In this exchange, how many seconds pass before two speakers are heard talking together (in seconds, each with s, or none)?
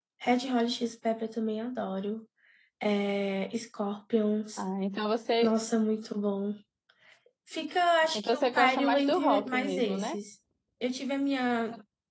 8.1 s